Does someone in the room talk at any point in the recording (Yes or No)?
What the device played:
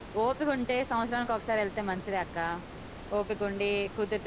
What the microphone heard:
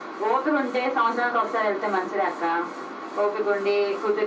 No